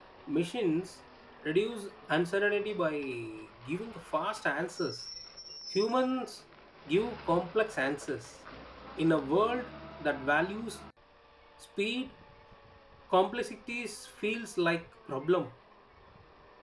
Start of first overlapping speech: none

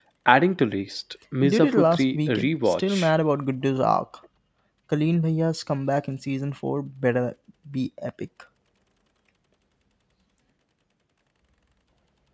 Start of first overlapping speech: 1.4 s

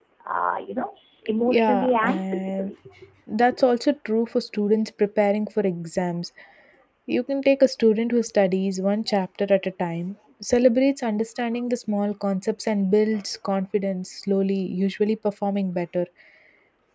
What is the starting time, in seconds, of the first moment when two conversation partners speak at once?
1.5 s

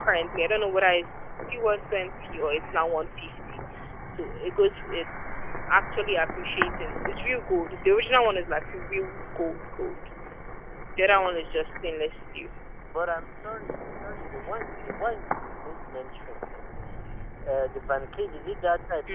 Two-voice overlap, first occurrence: none

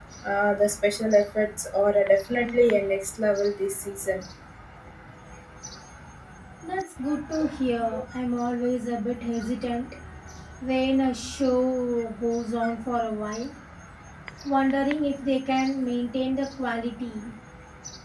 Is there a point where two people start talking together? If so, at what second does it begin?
none

